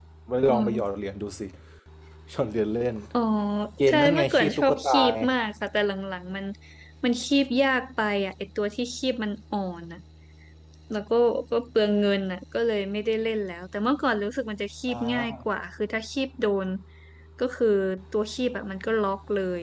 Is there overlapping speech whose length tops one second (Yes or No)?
Yes